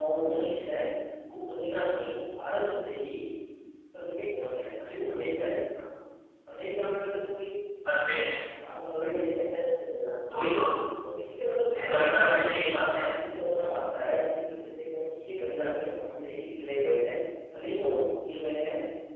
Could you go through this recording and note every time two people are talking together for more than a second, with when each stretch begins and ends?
11.7-13.1

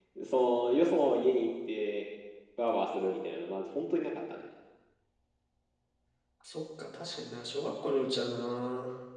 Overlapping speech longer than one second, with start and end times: none

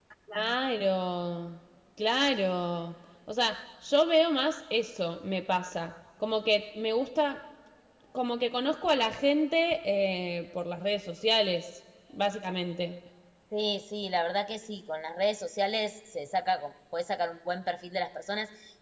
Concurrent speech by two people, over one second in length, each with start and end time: none

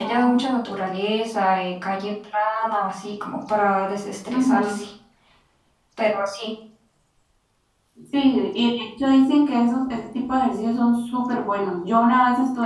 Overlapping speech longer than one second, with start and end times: none

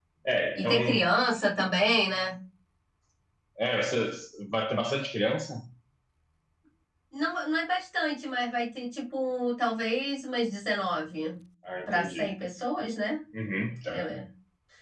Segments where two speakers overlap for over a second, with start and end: none

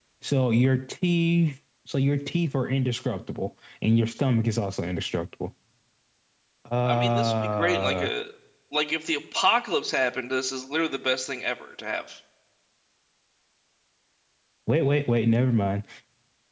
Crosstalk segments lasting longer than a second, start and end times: 6.8-8.1

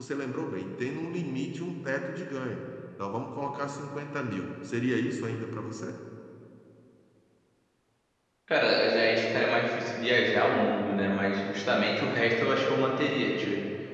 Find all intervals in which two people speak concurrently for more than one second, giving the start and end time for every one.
none

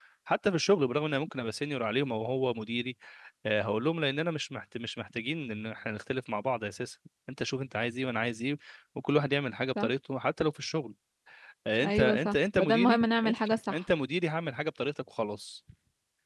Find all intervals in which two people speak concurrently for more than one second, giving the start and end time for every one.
11.8-13.8

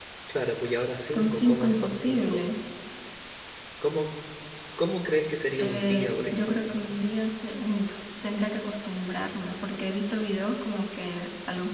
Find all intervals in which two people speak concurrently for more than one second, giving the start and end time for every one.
1.1-2.4, 5.6-6.9

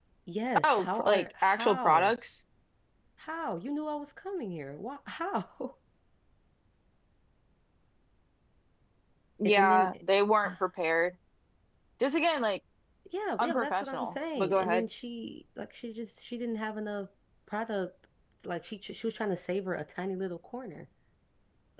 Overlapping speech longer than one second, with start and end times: 0.6-2.1, 13.4-14.8

